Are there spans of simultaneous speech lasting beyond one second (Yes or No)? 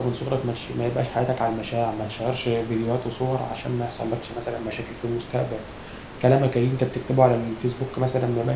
No